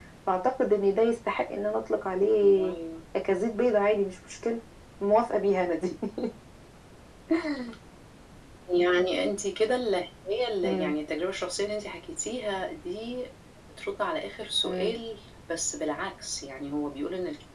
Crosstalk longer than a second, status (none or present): none